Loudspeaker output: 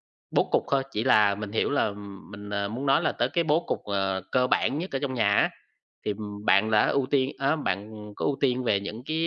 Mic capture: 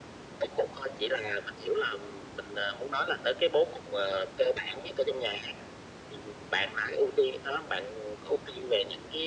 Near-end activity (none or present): none